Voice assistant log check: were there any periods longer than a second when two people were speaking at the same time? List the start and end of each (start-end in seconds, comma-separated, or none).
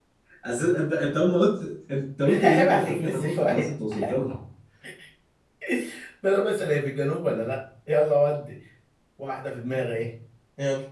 2.4-3.7